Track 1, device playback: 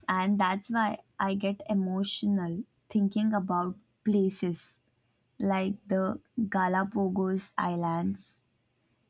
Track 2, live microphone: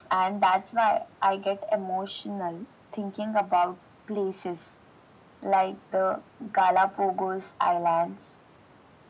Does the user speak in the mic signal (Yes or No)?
No